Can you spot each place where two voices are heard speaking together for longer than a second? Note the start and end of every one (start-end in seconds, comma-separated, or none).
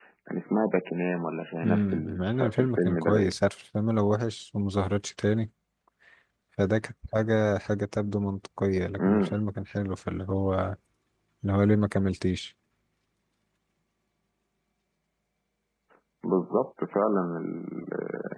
1.6-3.3